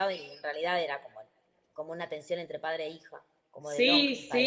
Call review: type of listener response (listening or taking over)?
taking over